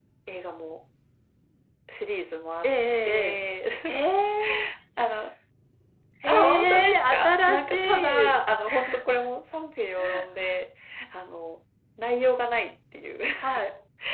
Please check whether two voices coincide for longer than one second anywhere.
Yes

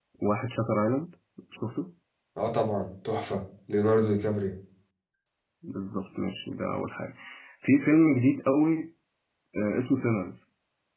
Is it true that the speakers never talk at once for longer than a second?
Yes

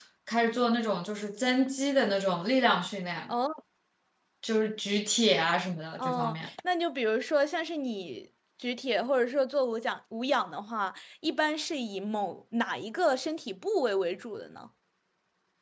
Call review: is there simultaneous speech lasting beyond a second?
No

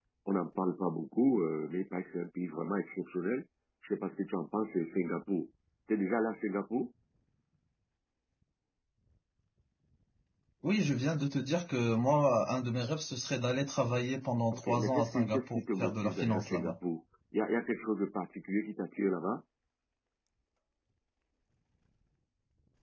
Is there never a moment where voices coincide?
No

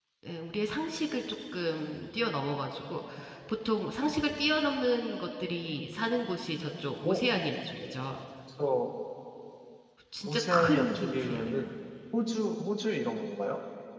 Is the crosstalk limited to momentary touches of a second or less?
No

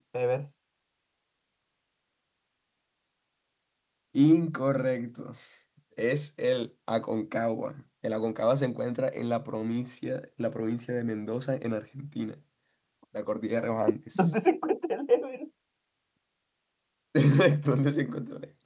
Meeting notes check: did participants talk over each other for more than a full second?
No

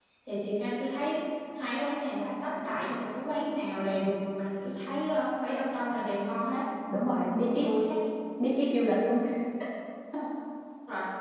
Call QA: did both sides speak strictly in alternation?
Yes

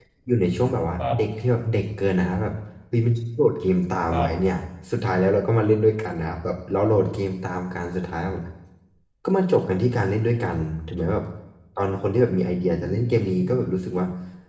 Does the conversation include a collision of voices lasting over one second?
Yes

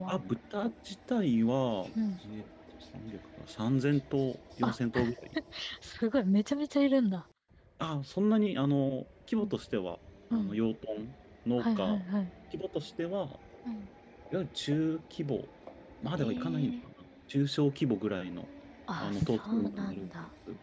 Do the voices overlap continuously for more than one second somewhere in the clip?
Yes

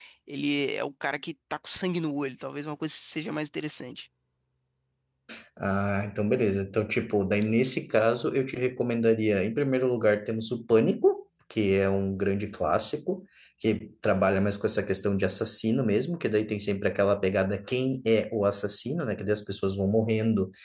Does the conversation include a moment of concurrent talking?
No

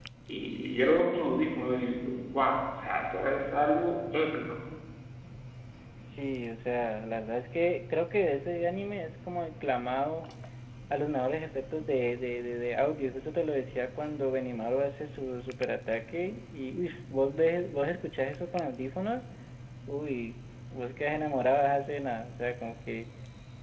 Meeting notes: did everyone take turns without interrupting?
Yes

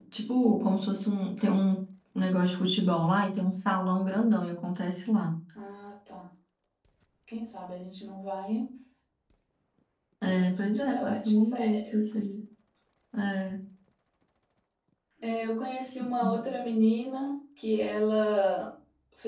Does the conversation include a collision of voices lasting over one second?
Yes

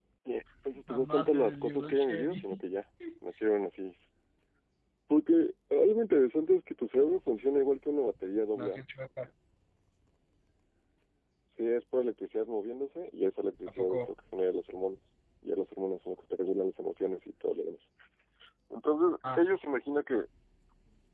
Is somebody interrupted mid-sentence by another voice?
Yes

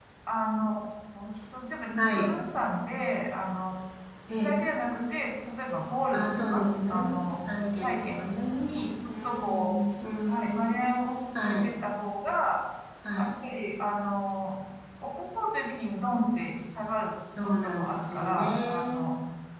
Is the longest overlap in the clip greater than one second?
Yes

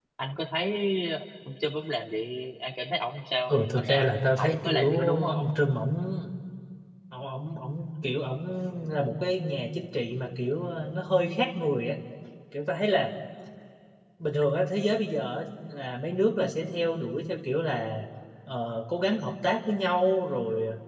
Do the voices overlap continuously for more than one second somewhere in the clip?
Yes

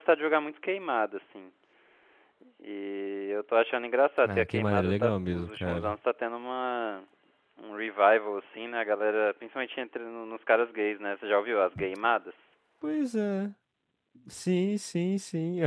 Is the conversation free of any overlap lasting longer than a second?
No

